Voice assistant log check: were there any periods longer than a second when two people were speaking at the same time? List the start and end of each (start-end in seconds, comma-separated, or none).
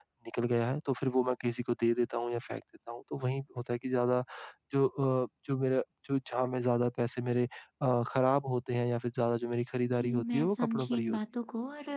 9.9-11.2